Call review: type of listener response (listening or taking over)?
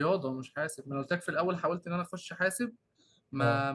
listening